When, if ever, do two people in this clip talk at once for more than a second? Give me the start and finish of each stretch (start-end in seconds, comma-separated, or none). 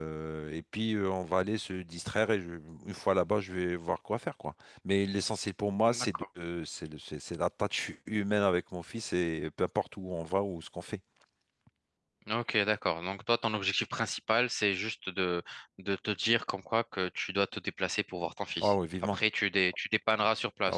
none